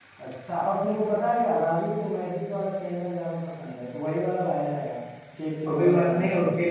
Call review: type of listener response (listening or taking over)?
taking over